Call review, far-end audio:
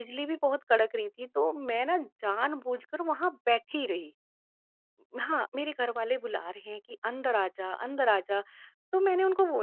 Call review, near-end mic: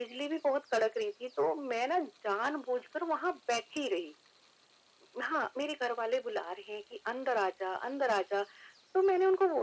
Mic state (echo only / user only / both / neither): echo only